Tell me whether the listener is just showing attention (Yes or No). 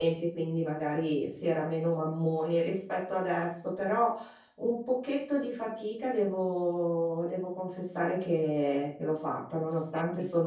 Yes